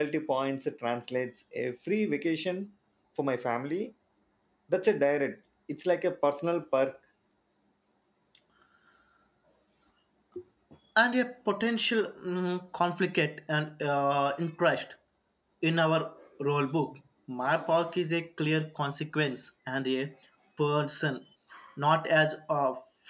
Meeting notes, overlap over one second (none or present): none